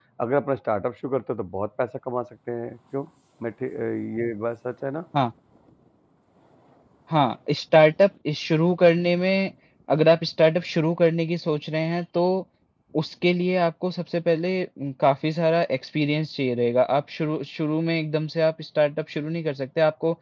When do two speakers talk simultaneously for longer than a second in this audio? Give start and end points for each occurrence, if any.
none

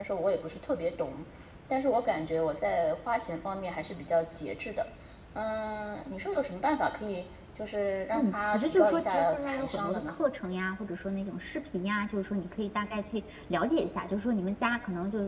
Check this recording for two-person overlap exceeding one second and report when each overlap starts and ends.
8.1-10.2

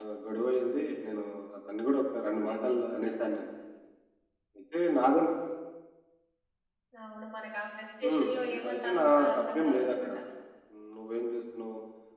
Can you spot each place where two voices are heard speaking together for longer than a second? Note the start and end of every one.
8.0-10.1

